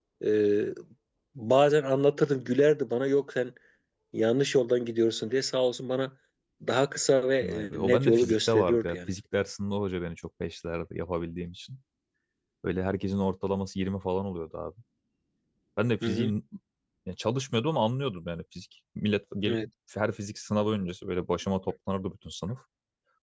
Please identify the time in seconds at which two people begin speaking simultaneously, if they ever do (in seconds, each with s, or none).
7.5 s